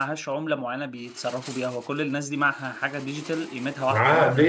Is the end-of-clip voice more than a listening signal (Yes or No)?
Yes